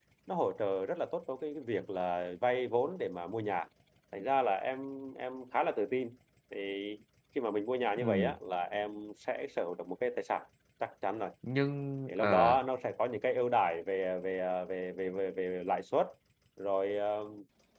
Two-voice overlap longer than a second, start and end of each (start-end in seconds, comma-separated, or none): none